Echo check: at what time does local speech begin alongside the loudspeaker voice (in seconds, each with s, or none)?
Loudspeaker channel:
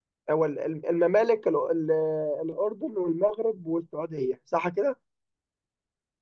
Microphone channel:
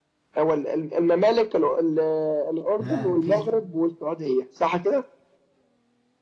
2.8 s